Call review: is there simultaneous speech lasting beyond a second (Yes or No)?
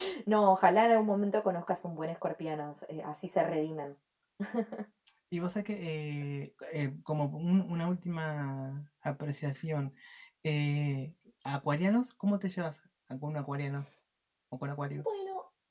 No